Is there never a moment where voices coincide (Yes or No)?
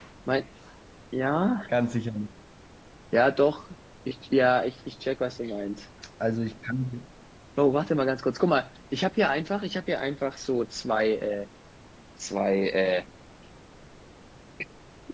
Yes